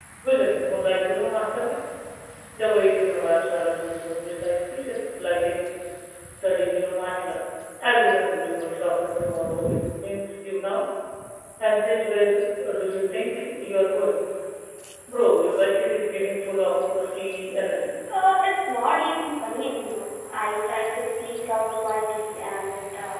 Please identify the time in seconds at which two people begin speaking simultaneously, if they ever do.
none

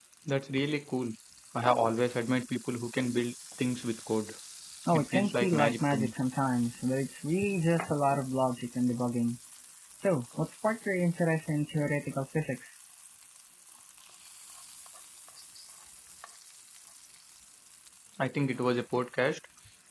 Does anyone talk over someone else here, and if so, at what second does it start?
4.9 s

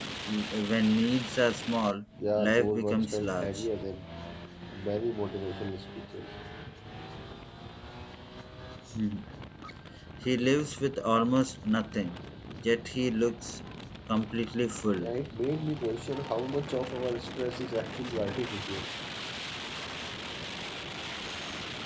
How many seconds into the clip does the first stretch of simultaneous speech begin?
2.2 s

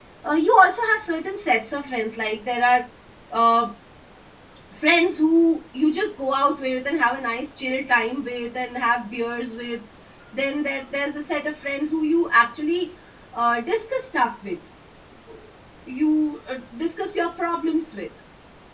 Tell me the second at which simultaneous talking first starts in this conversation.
none

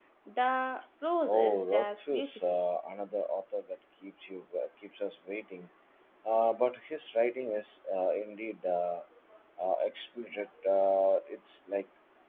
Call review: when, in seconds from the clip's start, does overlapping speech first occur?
1.2 s

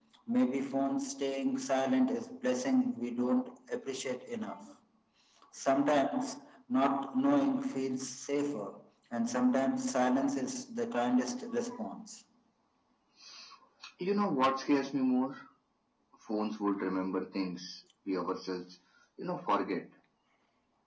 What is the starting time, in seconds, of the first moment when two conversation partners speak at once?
none

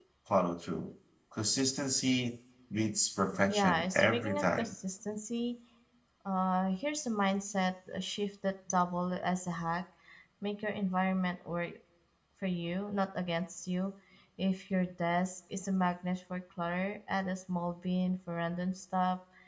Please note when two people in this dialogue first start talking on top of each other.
3.5 s

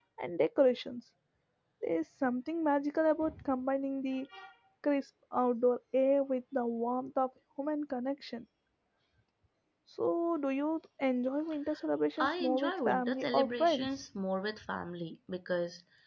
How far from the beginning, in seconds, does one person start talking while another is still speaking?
12.2 s

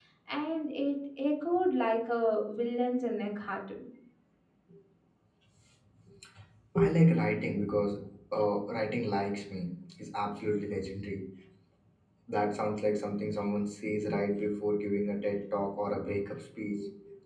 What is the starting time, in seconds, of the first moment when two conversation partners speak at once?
none

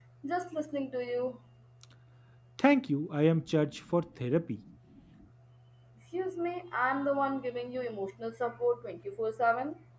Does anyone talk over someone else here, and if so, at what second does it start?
none

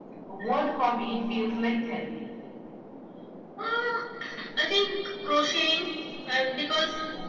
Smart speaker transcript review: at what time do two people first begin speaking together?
none

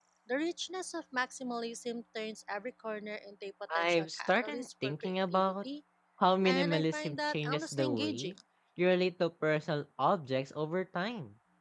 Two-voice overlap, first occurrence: 3.8 s

